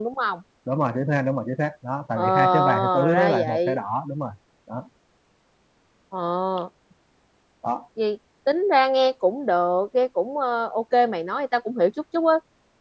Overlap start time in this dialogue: 2.1 s

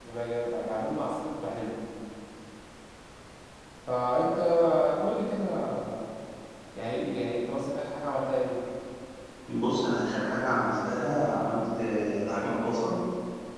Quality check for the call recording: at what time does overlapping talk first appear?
none

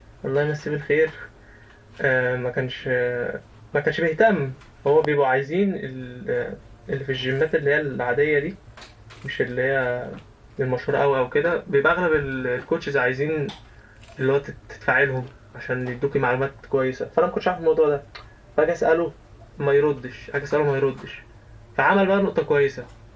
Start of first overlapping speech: none

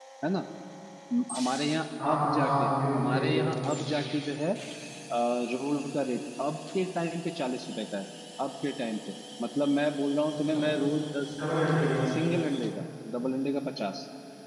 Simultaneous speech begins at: 2.0 s

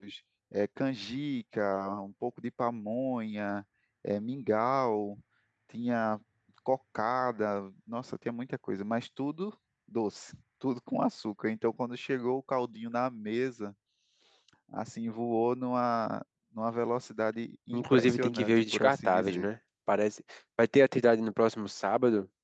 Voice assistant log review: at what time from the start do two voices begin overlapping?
17.7 s

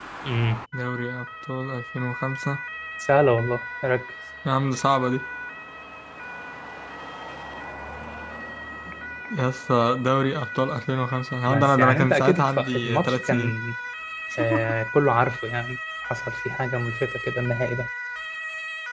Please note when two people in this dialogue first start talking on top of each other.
11.5 s

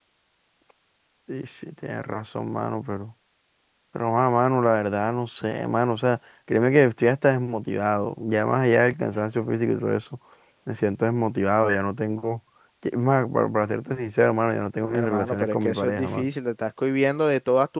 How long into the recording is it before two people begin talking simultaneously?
14.9 s

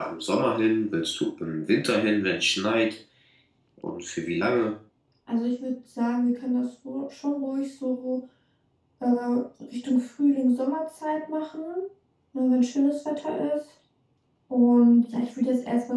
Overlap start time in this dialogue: none

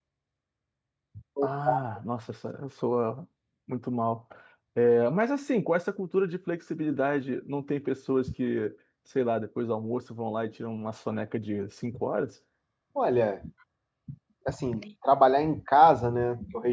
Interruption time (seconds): none

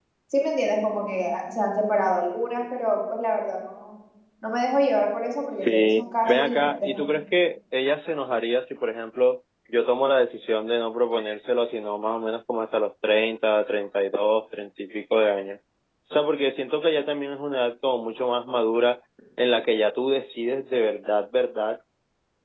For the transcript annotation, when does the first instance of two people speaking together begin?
5.5 s

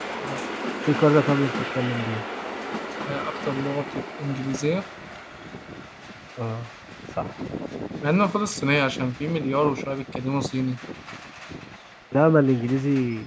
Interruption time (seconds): none

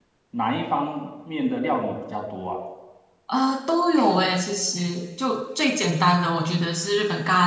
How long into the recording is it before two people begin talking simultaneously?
none

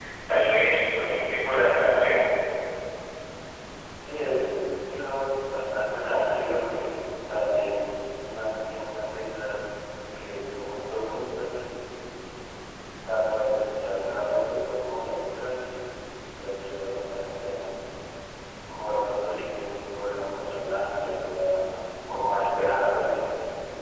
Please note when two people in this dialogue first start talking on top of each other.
none

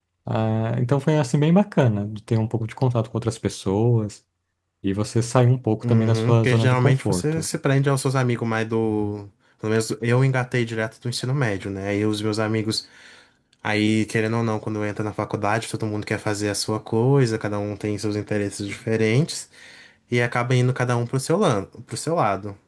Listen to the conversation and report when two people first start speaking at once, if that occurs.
5.8 s

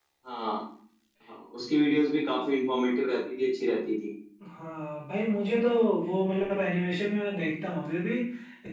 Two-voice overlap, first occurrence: none

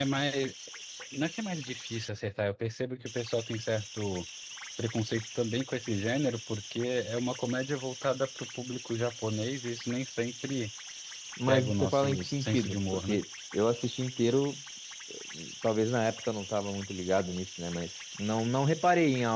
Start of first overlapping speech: 11.5 s

